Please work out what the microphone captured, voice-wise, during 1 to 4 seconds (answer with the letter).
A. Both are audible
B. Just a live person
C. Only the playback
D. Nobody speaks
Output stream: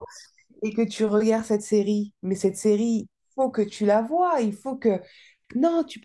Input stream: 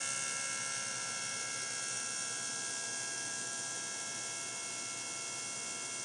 D